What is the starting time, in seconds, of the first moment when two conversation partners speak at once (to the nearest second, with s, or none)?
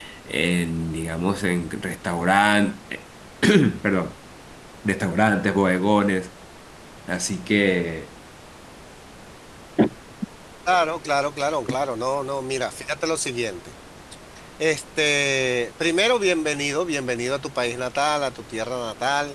none